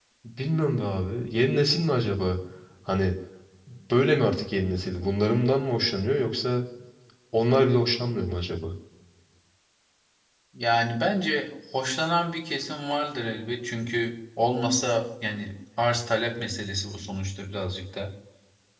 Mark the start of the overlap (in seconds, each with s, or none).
none